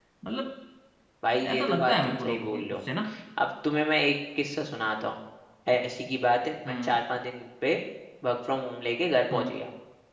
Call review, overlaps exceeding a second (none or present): present